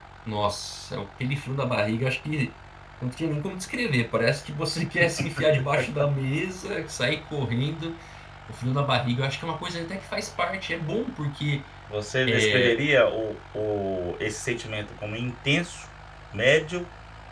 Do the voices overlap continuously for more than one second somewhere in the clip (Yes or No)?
No